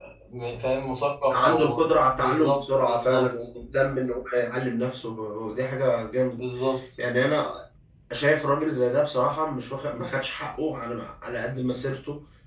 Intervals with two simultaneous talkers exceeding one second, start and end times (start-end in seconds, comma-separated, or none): 1.3-3.4